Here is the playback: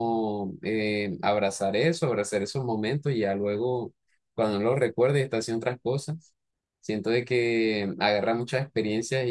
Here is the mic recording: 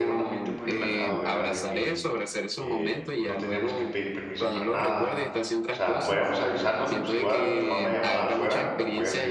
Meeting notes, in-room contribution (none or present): present